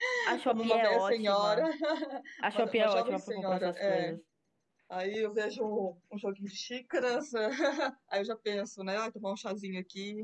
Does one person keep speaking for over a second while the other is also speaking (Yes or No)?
Yes